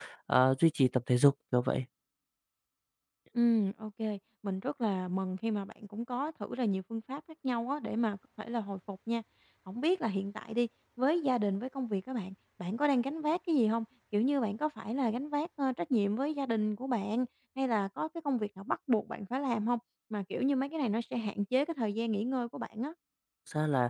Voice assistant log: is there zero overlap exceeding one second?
Yes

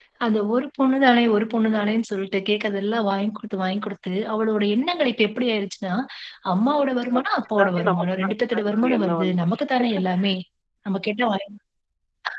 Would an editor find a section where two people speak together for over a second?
Yes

